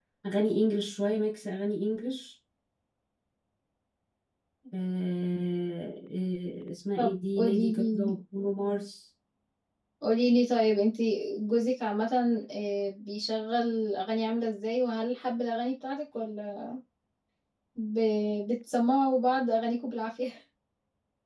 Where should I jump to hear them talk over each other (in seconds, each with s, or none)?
7.0 s